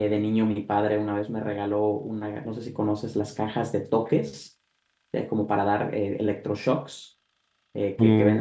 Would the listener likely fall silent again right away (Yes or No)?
No